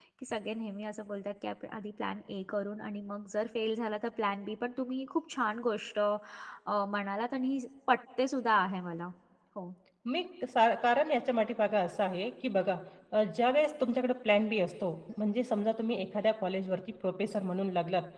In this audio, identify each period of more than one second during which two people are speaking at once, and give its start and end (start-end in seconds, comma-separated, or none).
none